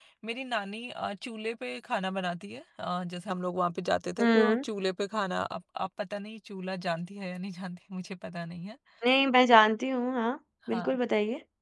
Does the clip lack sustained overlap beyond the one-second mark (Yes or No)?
Yes